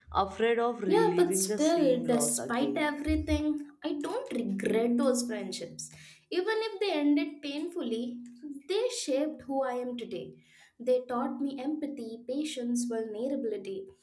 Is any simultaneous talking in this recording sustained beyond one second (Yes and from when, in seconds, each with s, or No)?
Yes, from 0.9 s